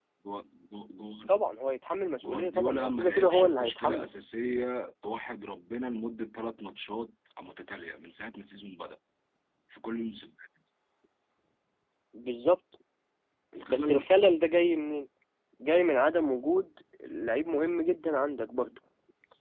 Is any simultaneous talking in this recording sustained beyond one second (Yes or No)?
Yes